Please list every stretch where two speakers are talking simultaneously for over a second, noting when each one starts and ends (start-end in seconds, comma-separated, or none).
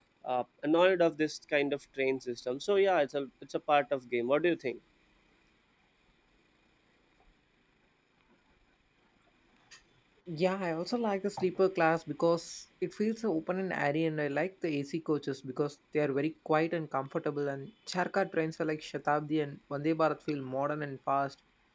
none